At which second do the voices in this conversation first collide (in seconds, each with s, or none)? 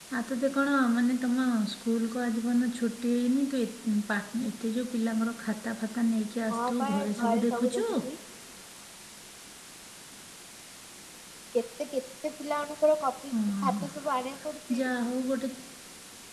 6.5 s